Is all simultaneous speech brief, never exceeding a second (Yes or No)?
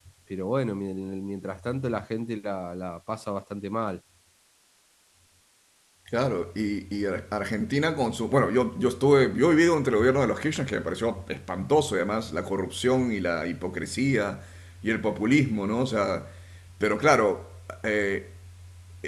Yes